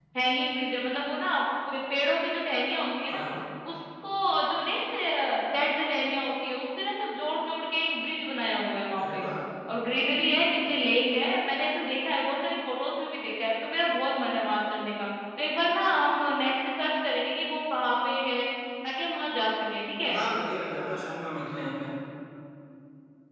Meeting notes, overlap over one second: none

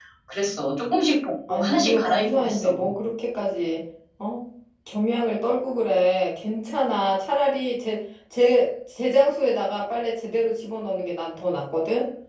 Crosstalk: present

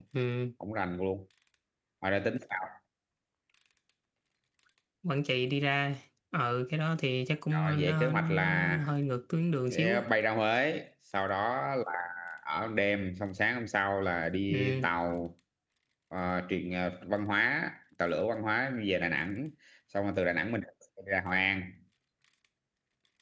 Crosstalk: present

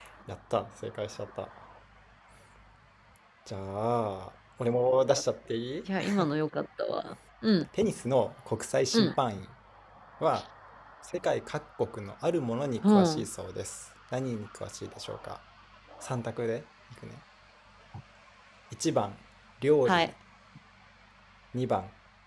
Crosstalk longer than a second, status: none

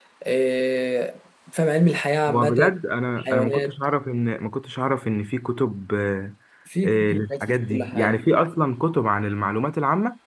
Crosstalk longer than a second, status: present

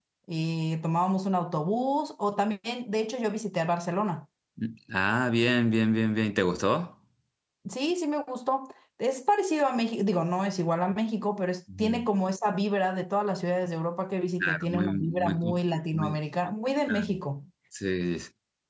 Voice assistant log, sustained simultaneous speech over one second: present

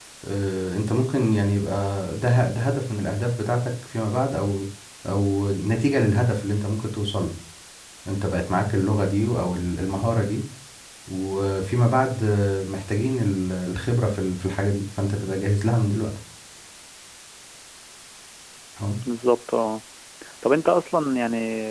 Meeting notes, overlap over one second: none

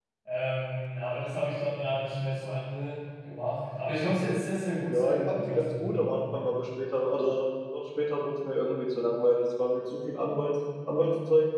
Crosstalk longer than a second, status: present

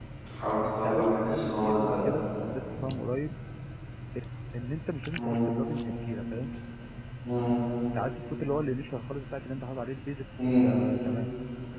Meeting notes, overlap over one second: present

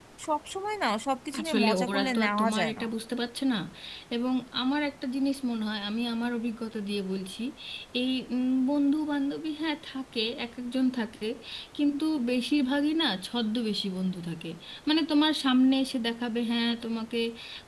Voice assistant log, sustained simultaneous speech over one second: present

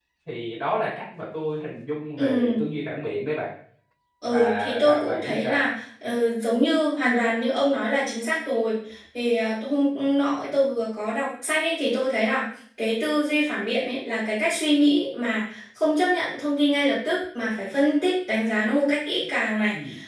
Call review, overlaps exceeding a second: present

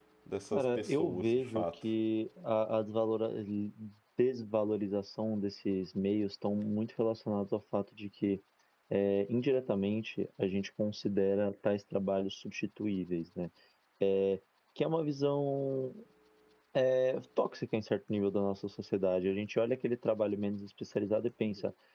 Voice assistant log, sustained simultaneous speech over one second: present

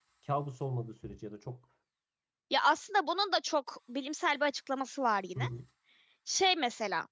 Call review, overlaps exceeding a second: none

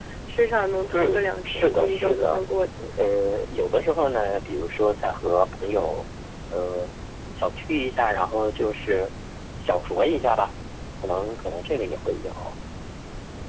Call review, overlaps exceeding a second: present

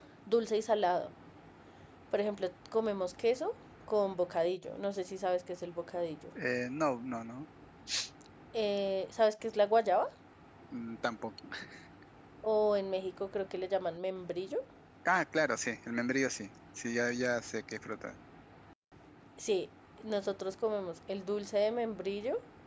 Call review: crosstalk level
none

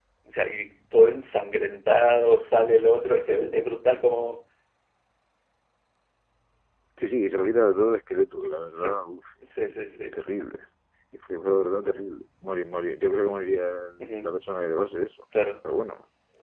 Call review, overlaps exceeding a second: none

